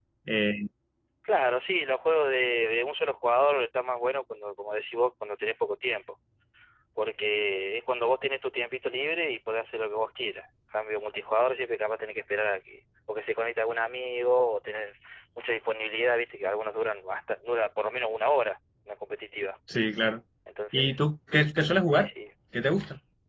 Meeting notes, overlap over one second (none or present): none